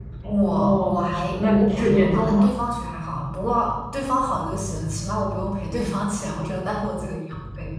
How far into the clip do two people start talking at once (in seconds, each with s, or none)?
0.5 s